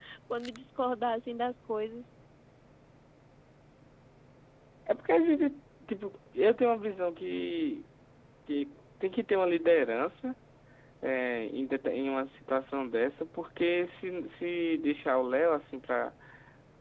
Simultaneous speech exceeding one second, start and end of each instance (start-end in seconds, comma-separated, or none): none